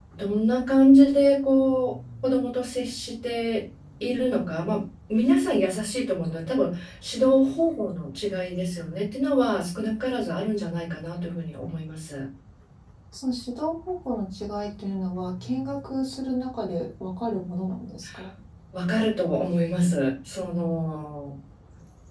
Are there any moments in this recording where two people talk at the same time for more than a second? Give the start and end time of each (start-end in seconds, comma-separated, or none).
none